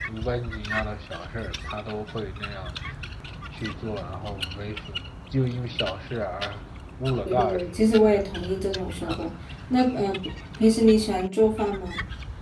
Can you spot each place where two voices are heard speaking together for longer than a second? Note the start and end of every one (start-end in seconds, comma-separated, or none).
7.2-9.2